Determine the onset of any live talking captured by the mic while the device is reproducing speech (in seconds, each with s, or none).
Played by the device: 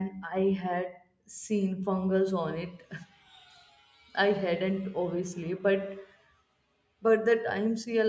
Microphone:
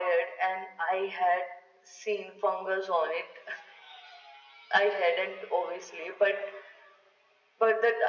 none